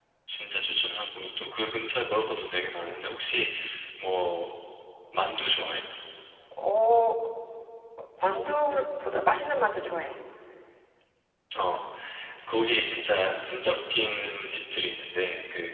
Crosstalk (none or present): none